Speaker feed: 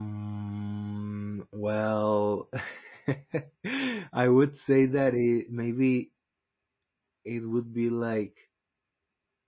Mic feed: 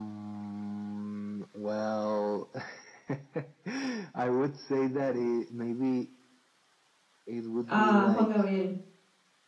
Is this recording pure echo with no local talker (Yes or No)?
No